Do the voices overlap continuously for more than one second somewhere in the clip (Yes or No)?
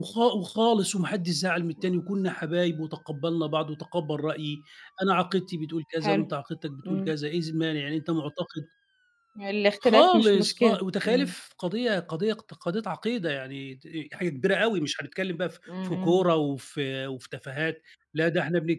Yes